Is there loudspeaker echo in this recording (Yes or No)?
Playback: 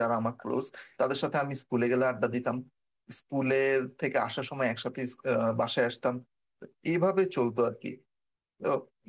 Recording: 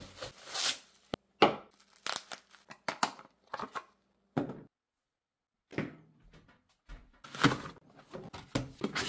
No